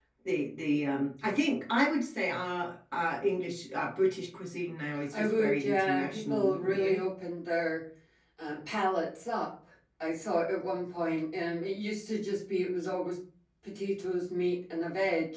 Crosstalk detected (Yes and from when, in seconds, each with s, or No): Yes, from 5.1 s